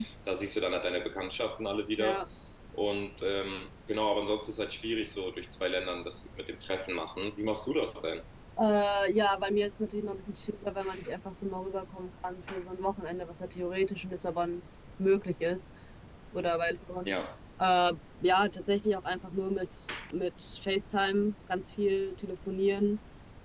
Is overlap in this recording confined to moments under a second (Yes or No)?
Yes